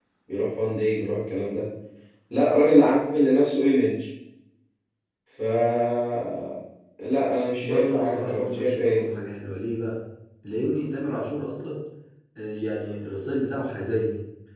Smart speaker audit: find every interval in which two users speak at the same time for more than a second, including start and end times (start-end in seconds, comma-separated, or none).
7.6-9.0